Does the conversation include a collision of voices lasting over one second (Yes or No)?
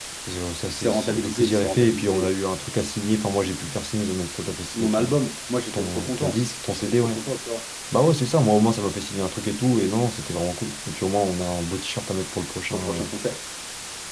Yes